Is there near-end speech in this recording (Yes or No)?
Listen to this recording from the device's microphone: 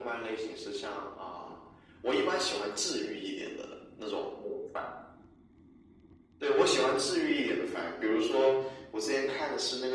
No